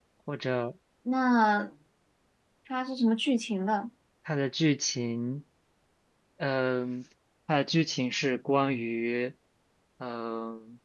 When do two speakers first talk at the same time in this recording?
none

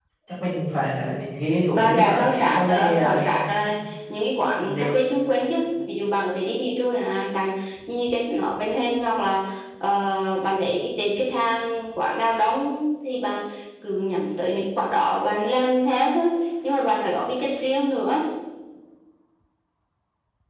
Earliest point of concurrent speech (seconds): 1.7 s

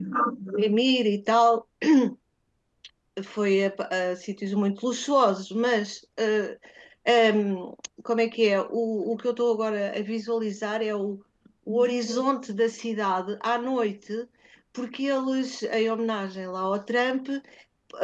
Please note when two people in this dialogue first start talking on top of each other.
none

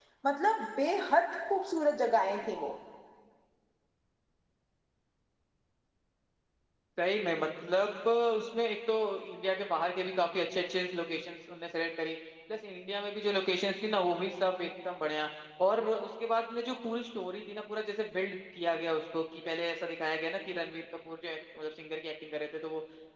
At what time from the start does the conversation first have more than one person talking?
none

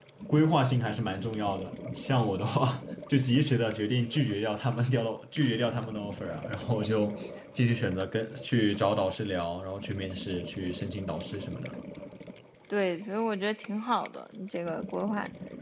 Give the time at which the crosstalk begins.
none

